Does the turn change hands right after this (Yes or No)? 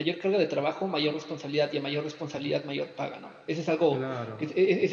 No